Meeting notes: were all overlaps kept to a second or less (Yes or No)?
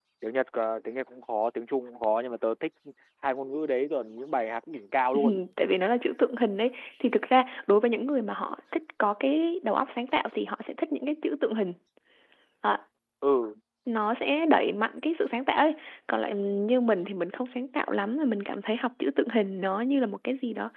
Yes